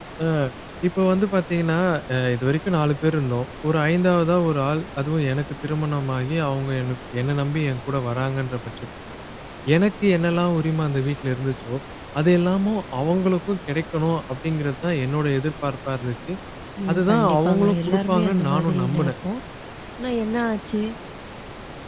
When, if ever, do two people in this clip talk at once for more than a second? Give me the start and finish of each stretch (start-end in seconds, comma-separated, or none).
16.9-19.1